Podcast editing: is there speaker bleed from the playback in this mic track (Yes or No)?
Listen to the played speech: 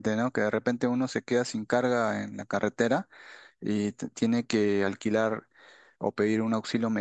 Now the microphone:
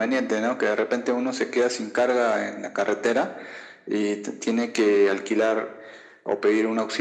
Yes